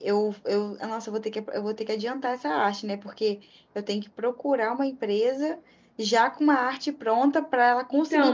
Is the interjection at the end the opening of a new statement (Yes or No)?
Yes